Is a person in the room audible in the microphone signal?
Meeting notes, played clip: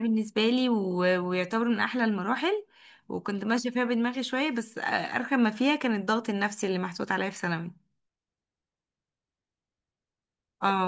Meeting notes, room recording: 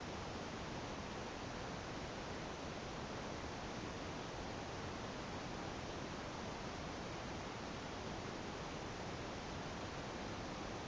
No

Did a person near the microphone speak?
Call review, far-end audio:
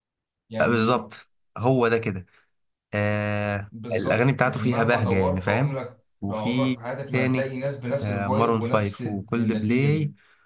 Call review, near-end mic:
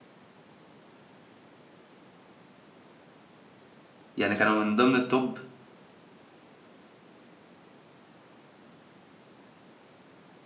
Yes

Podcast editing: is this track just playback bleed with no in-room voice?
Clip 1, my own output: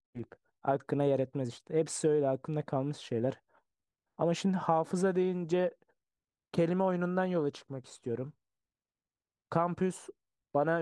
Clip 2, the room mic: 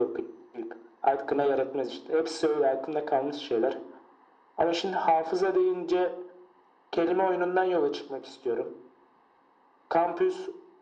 Yes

